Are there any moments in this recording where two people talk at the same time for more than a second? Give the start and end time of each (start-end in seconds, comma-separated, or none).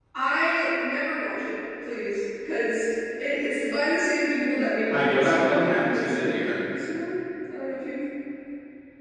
4.9-6.4